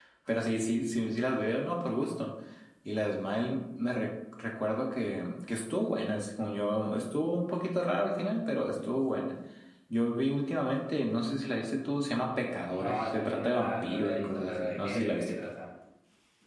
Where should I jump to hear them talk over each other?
12.7 s

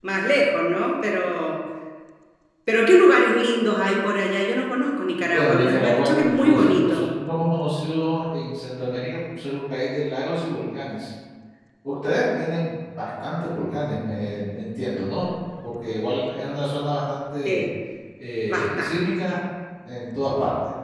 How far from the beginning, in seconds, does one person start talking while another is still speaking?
5.3 s

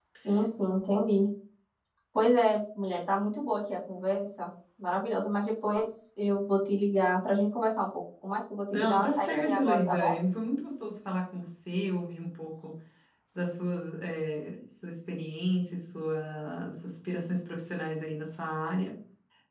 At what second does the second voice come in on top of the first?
8.7 s

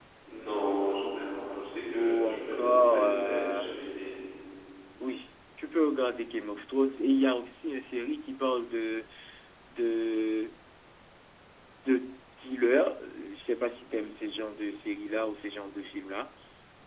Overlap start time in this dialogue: 1.9 s

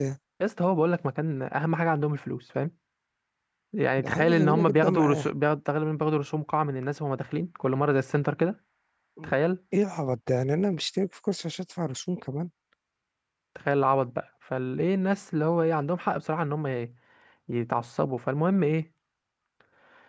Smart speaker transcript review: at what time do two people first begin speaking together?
4.0 s

